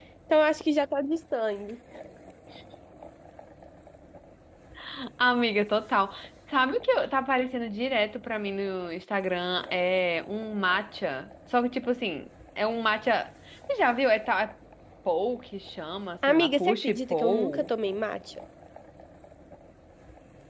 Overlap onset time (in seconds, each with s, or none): 16.2 s